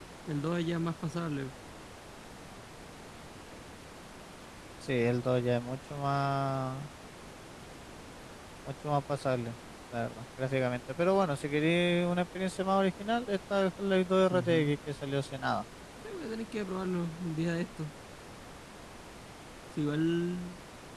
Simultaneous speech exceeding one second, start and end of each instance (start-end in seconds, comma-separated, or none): none